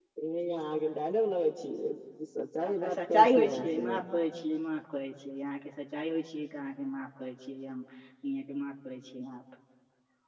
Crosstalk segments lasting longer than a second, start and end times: 2.7-4.0

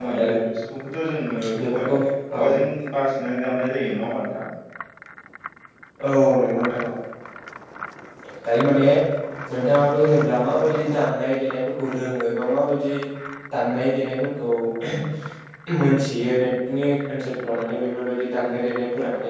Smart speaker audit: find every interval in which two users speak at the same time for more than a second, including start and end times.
none

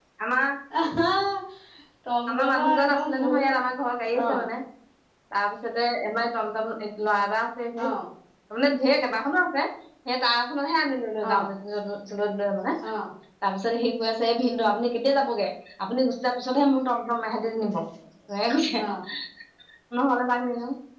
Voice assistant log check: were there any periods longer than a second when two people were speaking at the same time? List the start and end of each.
2.3-3.5

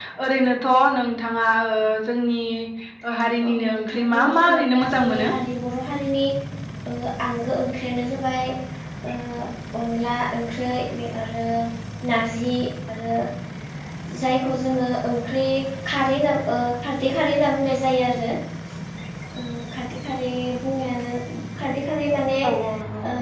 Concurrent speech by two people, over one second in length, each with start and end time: 3.5-5.3

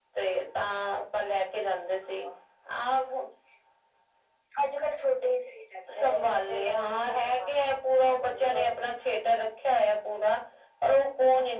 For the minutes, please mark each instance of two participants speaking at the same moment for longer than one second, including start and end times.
6.0-8.6

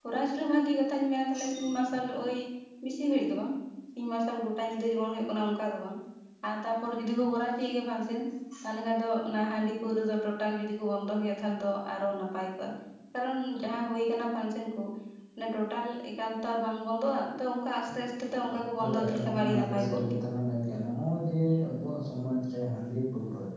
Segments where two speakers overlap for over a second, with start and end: 18.8-20.2

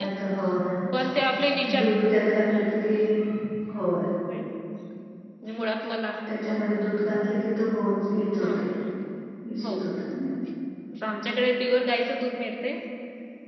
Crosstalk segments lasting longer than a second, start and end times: none

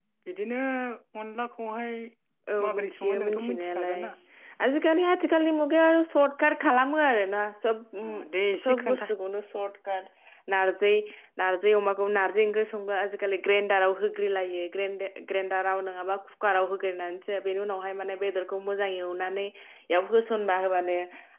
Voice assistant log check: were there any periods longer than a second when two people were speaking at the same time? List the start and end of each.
2.6-4.0

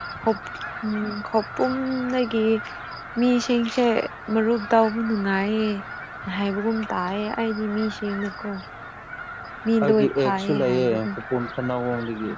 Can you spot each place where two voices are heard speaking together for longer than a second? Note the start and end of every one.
9.8-11.1

